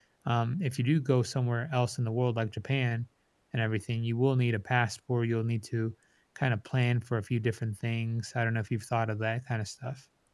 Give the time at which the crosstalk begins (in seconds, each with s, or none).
none